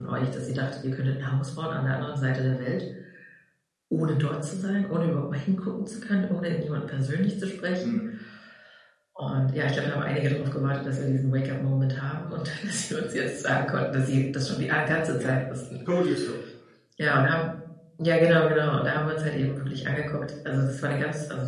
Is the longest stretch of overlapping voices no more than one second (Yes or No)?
Yes